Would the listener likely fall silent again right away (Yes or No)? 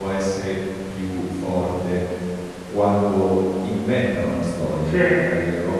Yes